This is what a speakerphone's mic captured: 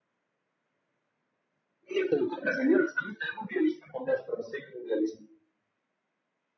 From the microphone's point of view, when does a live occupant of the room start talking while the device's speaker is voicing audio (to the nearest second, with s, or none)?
none